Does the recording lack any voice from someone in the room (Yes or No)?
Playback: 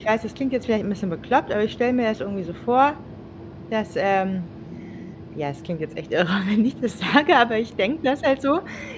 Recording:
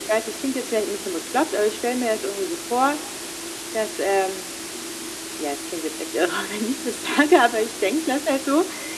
Yes